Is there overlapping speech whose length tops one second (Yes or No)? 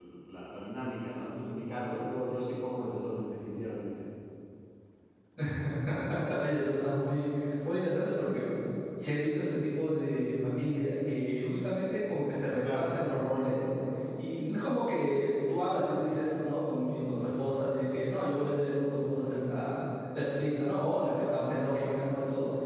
No